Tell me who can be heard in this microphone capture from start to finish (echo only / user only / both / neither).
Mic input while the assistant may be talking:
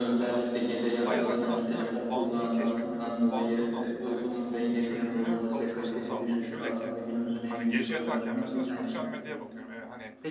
both